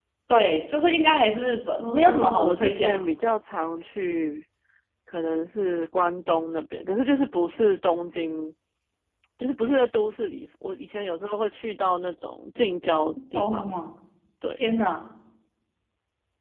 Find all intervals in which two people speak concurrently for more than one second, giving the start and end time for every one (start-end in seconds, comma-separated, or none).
1.8-3.0